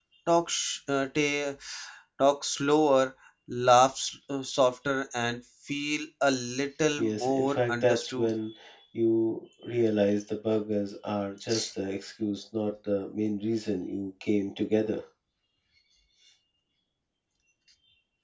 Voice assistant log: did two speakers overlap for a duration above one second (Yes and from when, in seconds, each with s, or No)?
Yes, from 7.0 s